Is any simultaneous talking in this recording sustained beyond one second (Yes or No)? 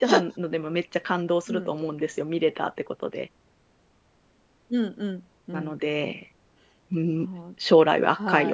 No